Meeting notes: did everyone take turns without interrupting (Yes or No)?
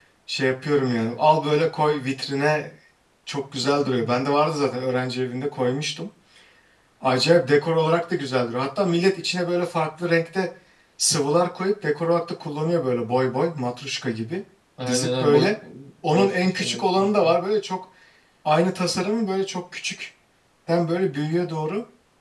No